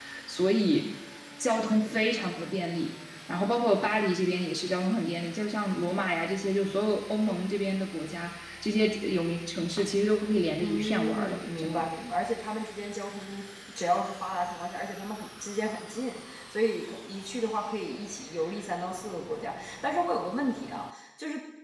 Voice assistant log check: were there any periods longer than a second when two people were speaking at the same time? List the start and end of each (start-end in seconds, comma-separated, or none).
10.6-11.8